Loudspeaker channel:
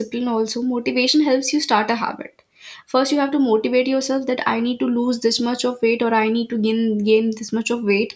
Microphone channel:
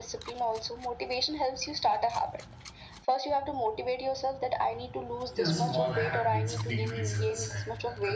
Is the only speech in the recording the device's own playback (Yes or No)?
No